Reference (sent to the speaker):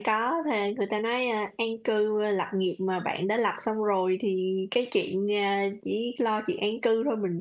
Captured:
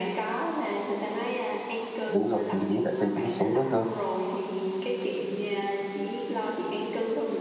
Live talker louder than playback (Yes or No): Yes